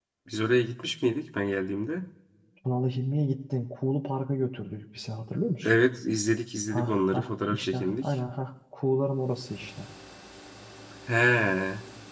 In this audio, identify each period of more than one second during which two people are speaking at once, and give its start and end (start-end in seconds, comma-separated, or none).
6.7-8.1